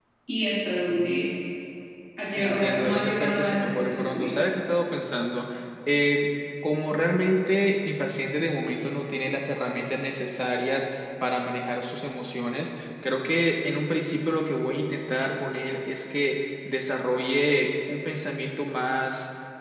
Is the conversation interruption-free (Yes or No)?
No